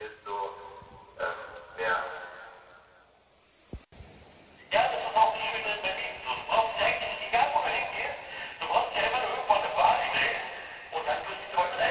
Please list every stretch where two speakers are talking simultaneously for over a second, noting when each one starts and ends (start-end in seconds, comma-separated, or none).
none